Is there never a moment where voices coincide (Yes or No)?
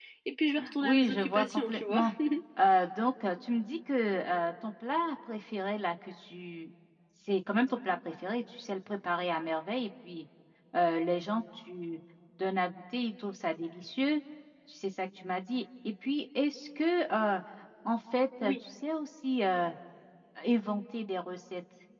No